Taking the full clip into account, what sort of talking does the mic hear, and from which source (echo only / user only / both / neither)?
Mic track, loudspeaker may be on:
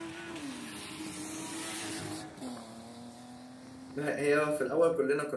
user only